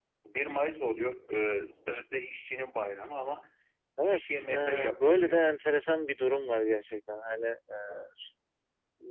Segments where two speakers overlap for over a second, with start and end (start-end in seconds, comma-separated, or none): 4.0-5.5